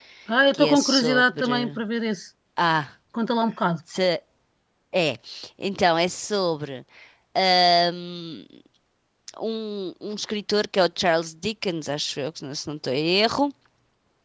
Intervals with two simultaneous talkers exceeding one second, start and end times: 0.5-1.8

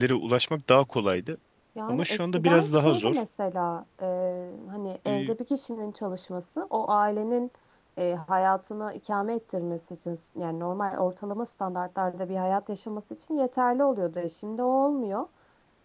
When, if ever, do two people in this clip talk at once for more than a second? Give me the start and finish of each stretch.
1.9-3.2

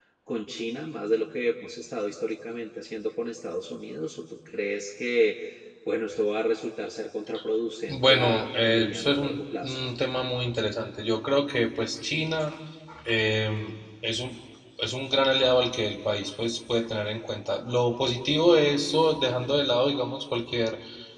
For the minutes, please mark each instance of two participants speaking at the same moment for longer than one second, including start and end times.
7.9-9.8

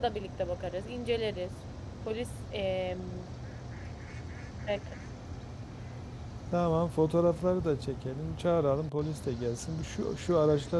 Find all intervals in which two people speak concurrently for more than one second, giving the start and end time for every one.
none

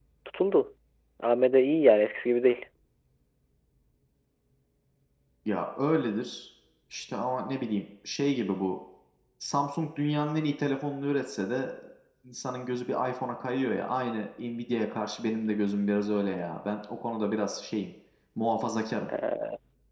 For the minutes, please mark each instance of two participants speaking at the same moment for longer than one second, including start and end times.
none

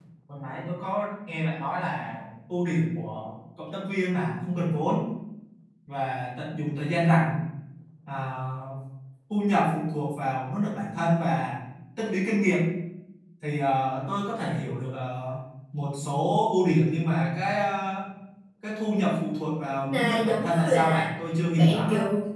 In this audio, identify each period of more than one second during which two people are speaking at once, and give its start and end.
19.8-21.1

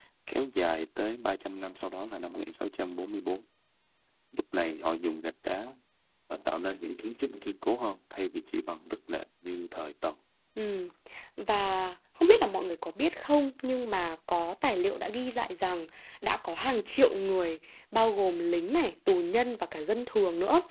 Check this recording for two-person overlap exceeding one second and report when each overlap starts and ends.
none

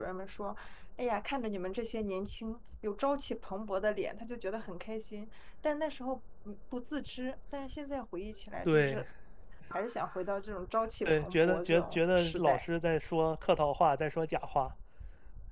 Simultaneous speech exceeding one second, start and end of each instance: 11.0-12.7

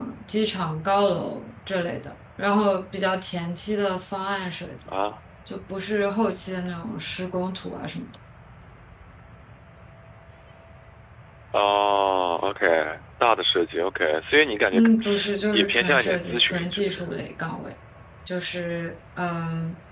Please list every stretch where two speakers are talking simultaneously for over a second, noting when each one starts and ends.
15.5-17.1

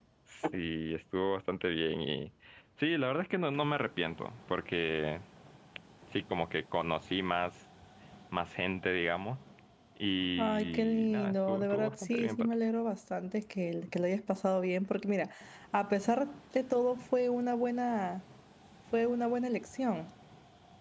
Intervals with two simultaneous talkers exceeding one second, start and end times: 10.4-12.5

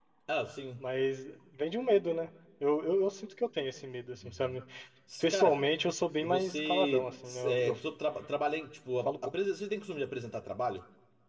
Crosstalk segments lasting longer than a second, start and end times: 6.2-7.7

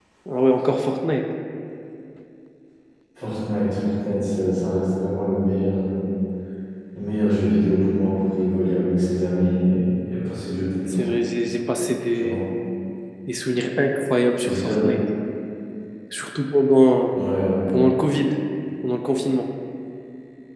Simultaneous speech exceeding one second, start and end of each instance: none

